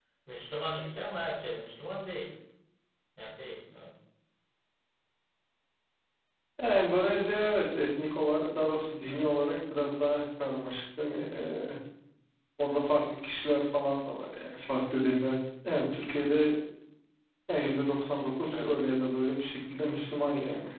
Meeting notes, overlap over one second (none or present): none